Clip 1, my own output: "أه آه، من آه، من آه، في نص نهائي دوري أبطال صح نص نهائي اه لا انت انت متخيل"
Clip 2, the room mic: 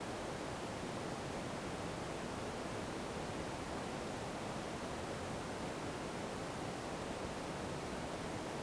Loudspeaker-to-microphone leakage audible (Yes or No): No